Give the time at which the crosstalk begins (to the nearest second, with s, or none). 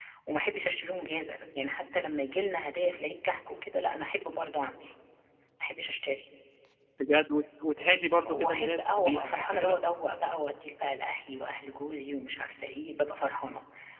8 s